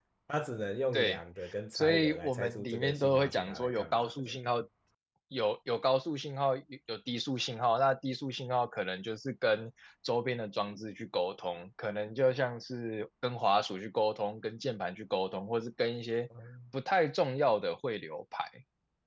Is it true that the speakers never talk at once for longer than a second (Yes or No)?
No